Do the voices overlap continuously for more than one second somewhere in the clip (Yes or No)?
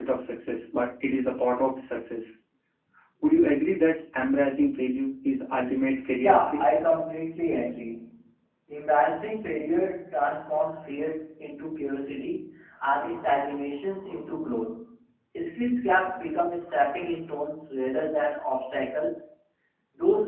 No